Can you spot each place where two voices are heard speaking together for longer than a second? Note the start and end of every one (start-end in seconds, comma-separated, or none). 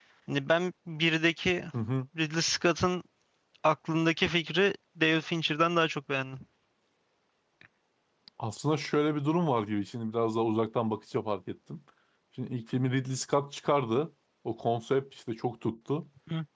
none